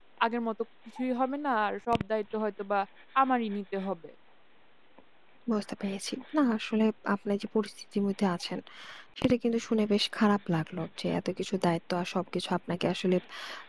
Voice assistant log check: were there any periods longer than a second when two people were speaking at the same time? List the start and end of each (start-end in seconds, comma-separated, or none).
none